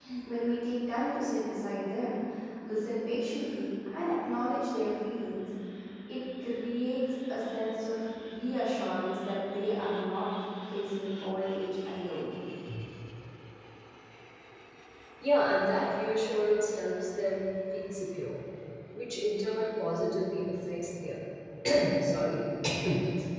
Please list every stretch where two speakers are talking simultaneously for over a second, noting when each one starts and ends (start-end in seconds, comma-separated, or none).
none